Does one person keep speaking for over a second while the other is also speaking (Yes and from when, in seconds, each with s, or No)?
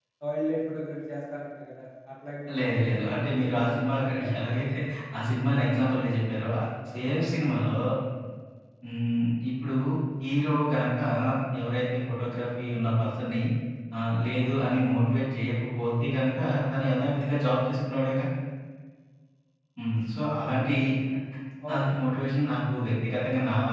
Yes, from 2.5 s